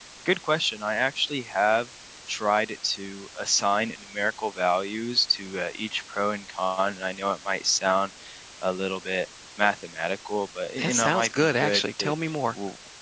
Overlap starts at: 10.8 s

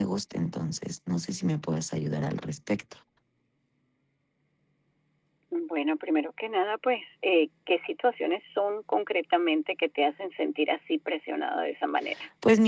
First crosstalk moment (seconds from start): none

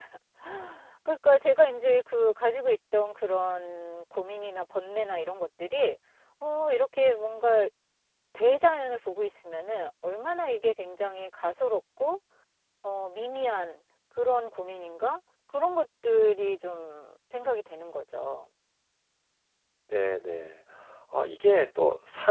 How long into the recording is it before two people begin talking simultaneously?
none

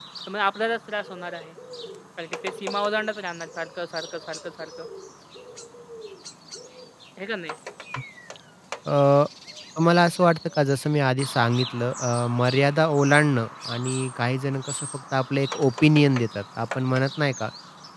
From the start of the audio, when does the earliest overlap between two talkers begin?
none

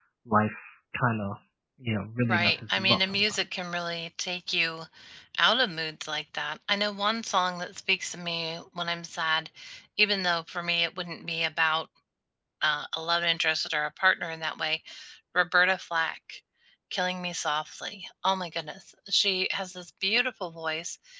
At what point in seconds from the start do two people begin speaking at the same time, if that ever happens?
2.2 s

